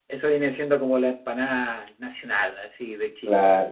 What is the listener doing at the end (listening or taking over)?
taking over